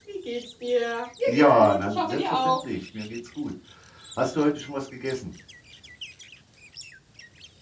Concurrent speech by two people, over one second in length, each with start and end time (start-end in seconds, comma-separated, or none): 1.3-2.6